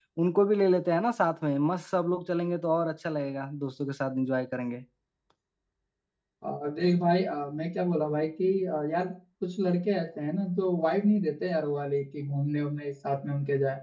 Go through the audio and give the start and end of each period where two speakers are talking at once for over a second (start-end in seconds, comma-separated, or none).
none